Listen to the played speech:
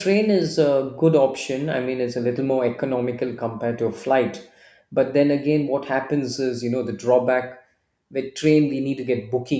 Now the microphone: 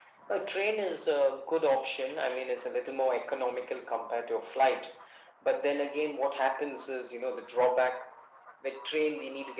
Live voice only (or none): none